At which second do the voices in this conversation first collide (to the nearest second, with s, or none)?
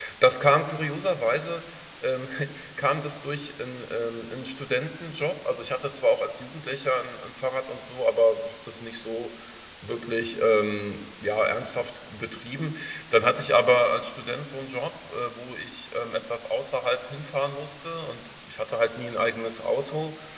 none